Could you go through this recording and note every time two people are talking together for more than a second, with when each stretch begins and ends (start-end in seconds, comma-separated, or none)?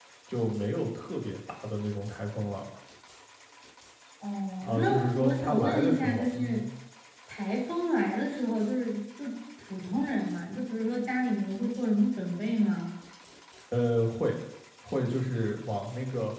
4.6-6.6